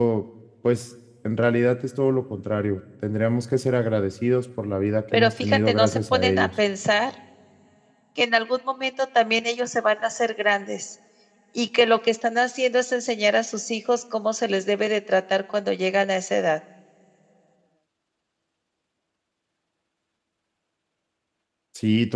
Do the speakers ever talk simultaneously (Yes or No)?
Yes